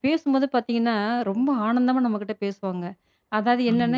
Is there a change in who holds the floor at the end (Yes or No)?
No